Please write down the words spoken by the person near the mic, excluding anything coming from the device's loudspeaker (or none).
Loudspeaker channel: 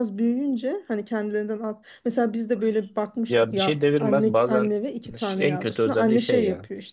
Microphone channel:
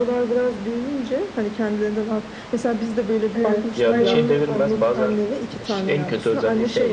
Evet. Hayvanı